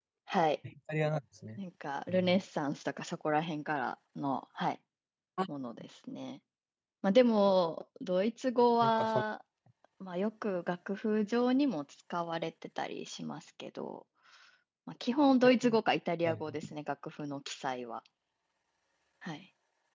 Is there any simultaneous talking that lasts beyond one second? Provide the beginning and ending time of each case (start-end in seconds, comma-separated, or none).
none